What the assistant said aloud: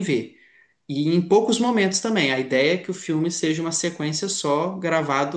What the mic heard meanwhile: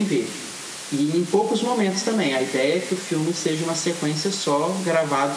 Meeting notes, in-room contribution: none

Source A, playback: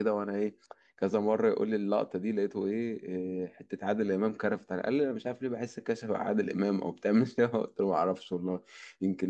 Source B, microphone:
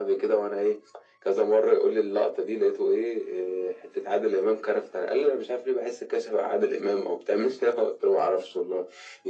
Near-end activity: none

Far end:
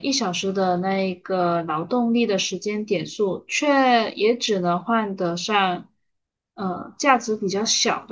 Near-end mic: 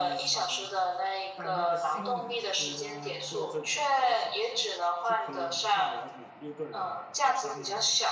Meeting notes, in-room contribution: present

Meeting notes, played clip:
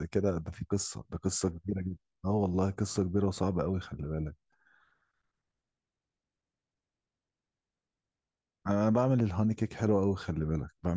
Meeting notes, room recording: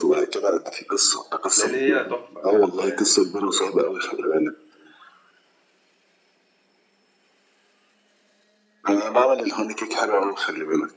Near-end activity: present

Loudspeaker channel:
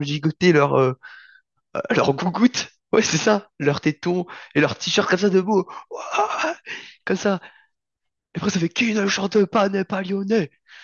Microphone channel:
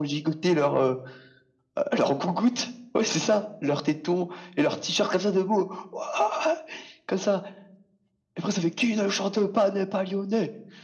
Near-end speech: none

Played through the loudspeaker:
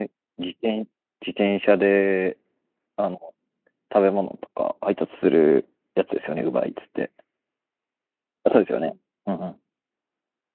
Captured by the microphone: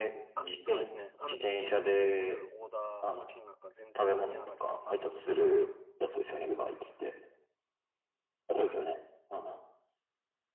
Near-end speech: present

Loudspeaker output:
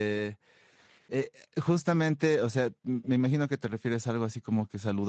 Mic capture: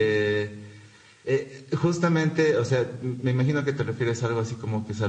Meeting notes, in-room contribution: none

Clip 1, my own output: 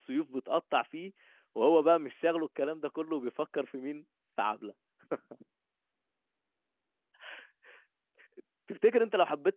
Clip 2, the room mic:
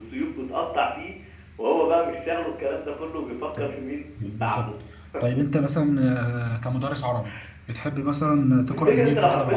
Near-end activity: present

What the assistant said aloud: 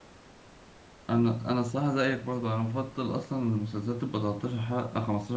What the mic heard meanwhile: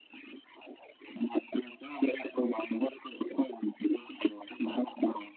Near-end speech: none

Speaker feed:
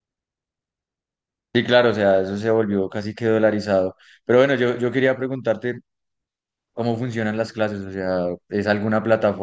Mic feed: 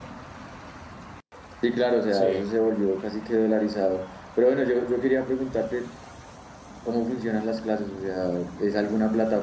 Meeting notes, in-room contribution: present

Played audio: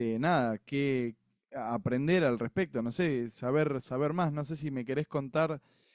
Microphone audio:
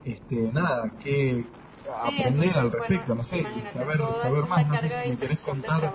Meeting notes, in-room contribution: present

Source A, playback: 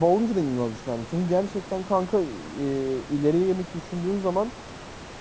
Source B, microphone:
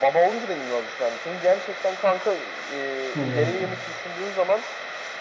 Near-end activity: present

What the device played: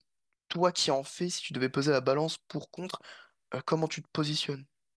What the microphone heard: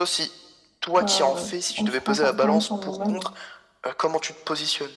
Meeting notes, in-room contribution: present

